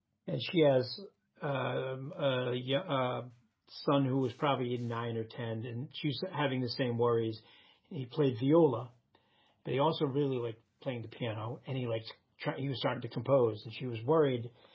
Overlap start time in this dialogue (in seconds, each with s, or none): none